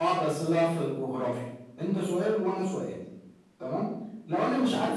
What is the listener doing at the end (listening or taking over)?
listening